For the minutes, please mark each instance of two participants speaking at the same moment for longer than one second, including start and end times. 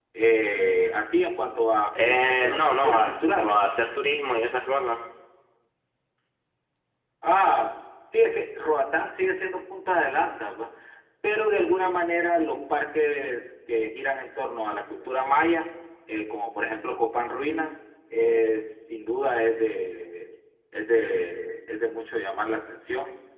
2.0-3.6

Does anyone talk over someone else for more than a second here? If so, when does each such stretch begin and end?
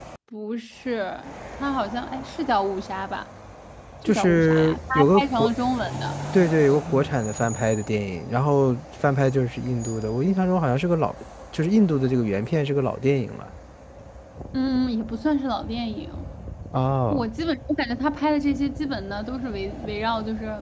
4.0-5.5

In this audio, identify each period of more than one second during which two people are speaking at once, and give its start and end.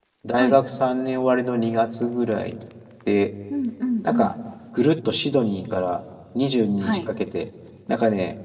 none

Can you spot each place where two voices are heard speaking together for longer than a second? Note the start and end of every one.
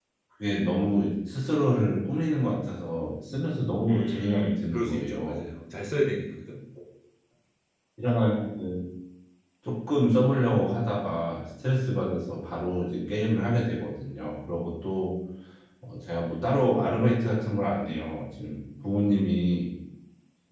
3.9-5.5

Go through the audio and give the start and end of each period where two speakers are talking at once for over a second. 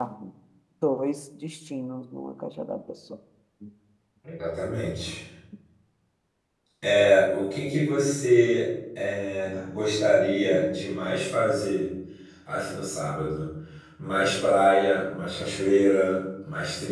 none

